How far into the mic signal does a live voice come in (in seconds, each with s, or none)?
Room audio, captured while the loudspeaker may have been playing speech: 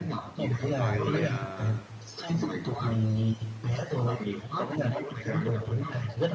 0.8 s